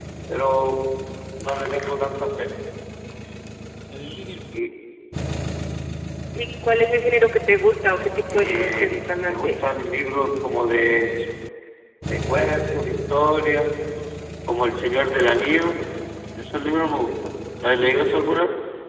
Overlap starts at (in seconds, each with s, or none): 8.3 s